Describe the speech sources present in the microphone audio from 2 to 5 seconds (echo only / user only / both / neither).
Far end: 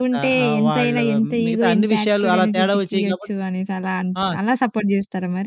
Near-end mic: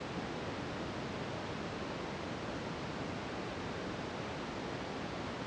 neither